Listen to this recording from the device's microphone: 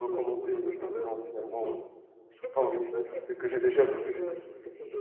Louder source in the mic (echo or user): user